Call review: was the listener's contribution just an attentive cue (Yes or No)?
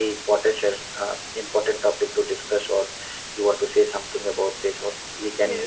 No